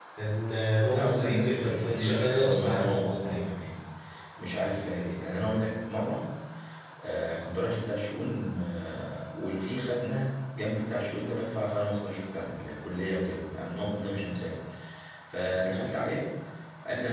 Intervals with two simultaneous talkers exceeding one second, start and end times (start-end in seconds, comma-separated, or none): 0.9-3.5